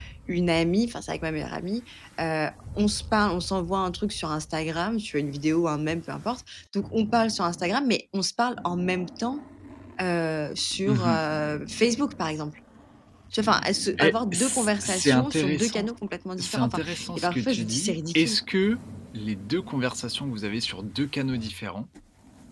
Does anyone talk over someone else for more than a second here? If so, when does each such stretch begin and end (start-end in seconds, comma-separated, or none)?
14.0-15.9, 16.4-18.4